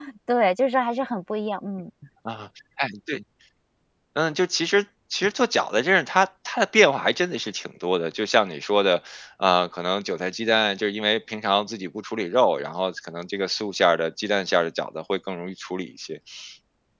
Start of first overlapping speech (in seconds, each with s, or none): none